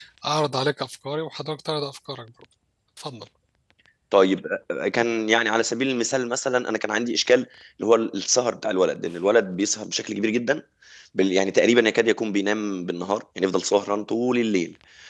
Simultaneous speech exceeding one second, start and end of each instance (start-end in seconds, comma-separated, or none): none